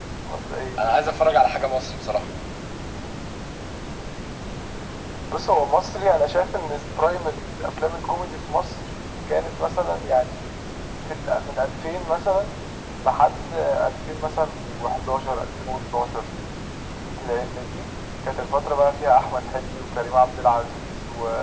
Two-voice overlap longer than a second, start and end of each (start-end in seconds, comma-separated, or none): none